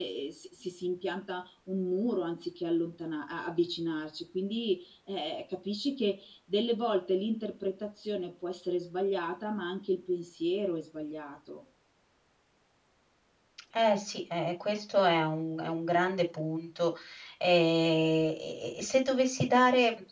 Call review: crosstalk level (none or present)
none